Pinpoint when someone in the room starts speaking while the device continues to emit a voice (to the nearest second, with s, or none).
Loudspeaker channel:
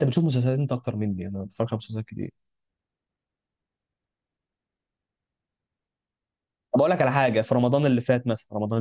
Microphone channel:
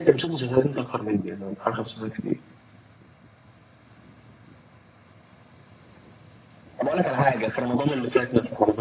none